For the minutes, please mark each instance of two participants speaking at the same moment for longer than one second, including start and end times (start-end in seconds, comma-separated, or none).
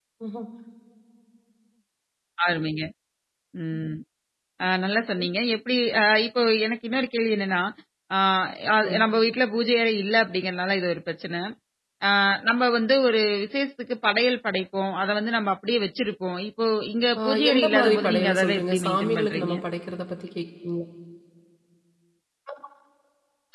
17.2-19.5